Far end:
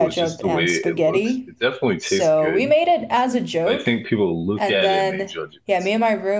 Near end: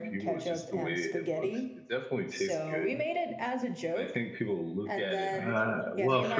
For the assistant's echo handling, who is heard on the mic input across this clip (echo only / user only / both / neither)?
both